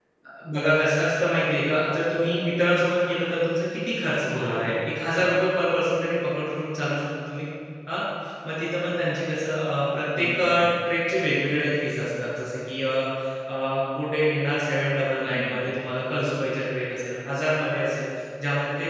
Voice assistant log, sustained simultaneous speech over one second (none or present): none